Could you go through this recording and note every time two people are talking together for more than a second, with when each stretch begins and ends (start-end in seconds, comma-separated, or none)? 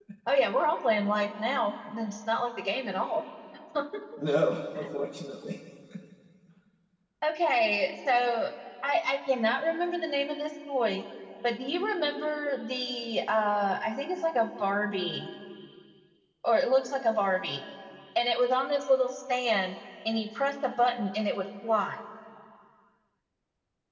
none